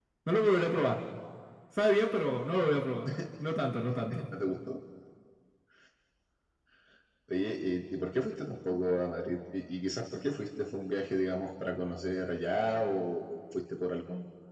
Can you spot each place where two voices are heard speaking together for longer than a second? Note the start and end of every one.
none

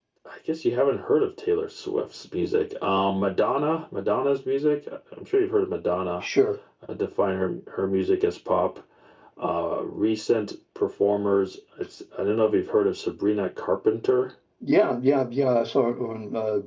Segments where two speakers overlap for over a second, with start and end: none

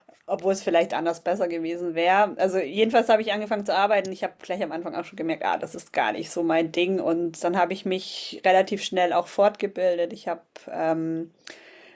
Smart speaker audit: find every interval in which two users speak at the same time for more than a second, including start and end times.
none

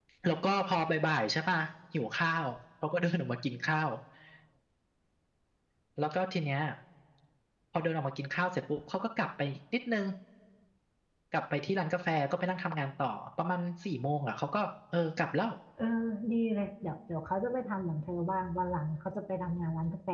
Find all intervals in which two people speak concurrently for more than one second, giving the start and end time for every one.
none

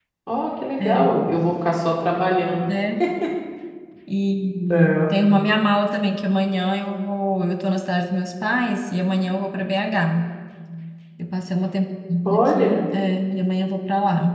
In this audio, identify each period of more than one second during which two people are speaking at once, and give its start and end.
none

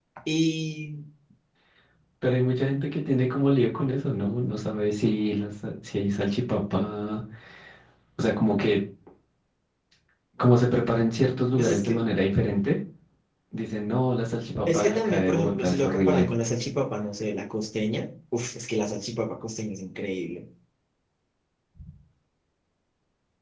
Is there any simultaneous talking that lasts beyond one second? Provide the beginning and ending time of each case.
14.7-16.2

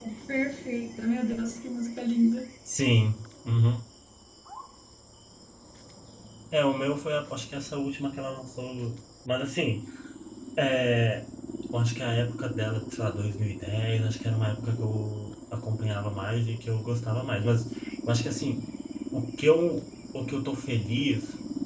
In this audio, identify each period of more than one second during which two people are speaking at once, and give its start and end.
none

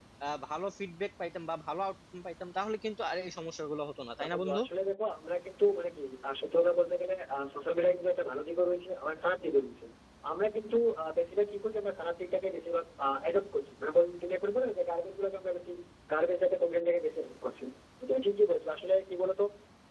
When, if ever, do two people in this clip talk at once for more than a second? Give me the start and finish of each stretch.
none

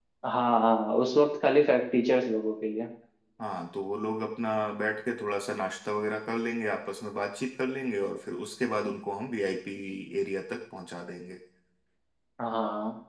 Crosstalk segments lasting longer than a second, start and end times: none

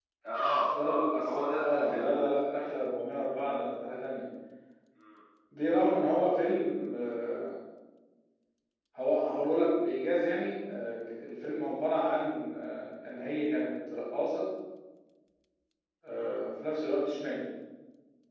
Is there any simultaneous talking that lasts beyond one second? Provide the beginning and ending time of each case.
0.7-2.2

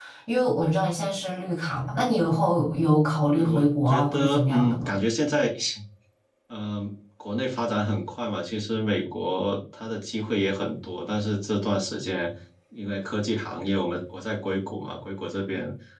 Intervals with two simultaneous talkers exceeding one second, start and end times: 3.3-4.9

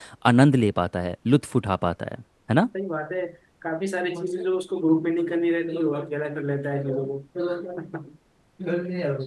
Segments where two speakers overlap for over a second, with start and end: none

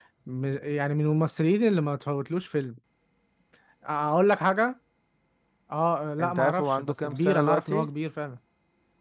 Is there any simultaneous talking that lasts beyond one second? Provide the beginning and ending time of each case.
6.2-7.9

